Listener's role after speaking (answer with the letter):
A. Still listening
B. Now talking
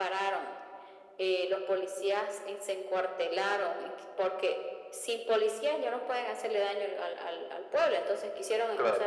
A